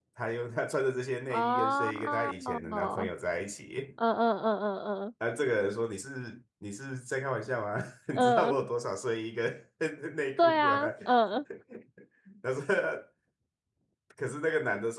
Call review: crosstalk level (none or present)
present